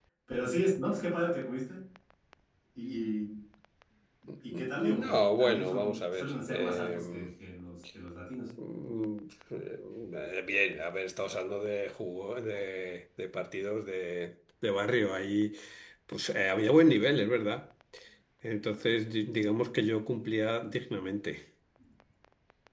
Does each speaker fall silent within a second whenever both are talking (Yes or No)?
No